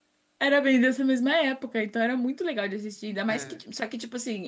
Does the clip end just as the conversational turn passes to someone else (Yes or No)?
No